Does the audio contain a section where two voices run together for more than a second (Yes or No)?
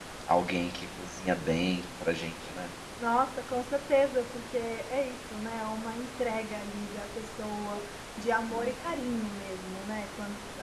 No